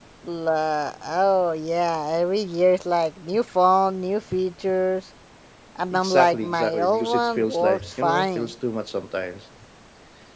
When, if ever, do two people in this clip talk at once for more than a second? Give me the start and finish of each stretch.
5.9-8.5

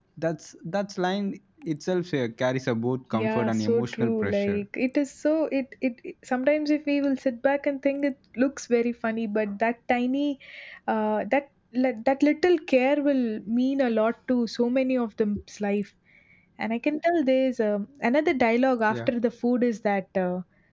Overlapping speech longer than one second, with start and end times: 3.1-4.6

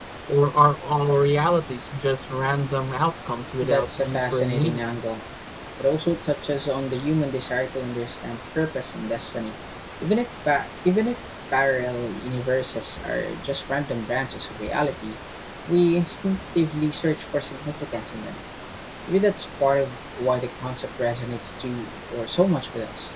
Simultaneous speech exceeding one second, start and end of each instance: 3.6-4.8

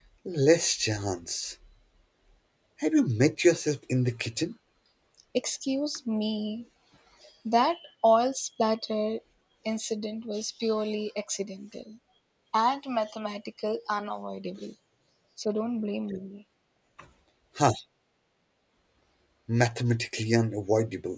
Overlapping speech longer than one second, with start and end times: none

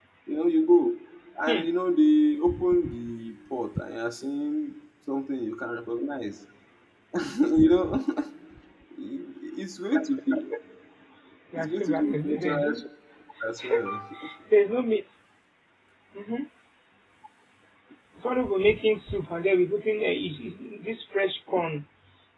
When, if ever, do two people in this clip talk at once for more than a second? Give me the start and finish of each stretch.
11.5-12.8

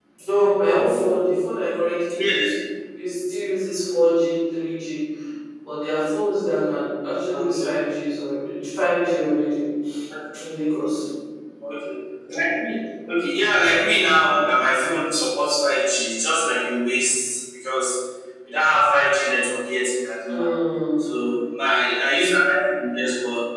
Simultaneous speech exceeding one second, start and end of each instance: none

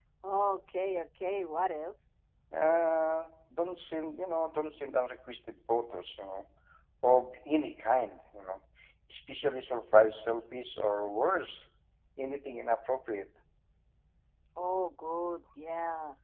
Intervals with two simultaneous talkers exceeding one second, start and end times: none

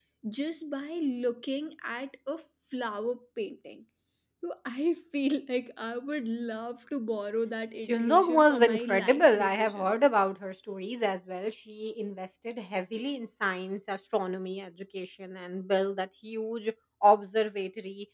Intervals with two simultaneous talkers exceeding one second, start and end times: 7.9-10.0

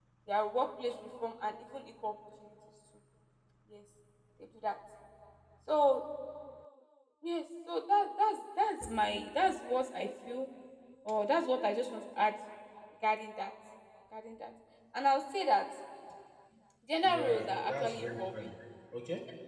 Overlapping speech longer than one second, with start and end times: 17.0-18.5

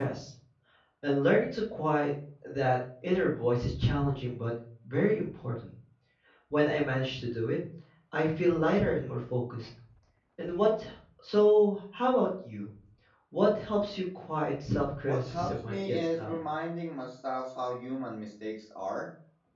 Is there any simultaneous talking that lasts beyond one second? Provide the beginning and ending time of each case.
15.1-16.4

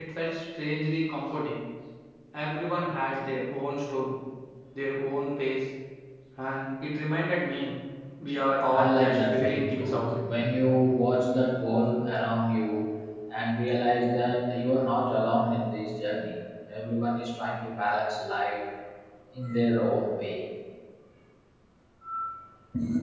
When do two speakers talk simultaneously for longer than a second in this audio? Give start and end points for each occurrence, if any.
8.7-10.1

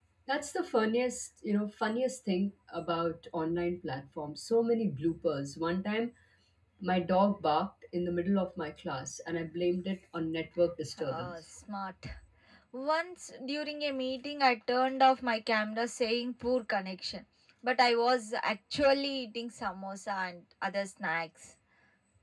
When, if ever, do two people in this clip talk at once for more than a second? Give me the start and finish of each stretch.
none

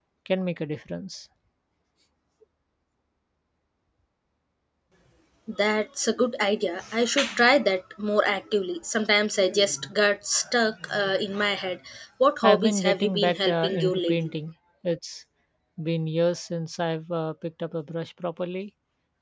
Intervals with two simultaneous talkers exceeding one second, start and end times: 12.4-14.3

